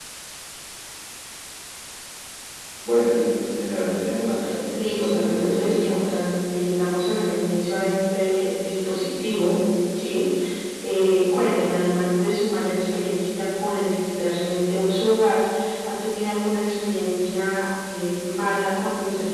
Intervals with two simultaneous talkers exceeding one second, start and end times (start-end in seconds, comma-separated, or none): 4.8-6.1